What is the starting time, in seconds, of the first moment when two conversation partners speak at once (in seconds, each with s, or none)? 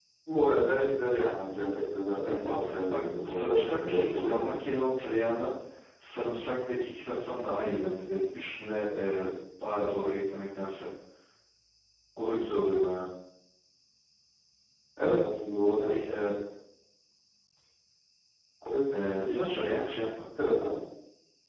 2.2 s